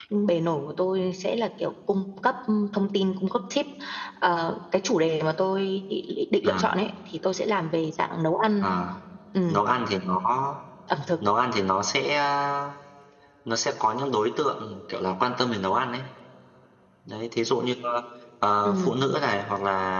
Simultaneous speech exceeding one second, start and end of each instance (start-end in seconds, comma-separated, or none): none